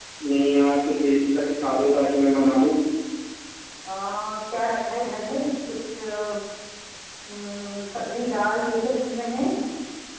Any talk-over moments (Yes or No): No